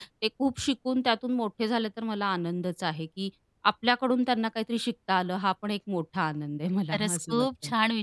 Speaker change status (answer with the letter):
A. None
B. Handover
B